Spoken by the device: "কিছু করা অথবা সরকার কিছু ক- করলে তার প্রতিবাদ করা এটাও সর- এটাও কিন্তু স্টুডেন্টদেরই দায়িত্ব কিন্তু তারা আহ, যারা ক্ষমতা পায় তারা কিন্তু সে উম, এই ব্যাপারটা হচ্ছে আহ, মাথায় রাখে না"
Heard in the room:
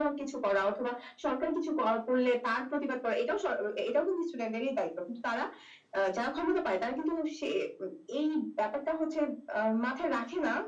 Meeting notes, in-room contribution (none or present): none